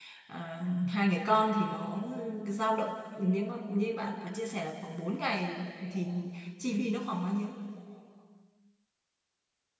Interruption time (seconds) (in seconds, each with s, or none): none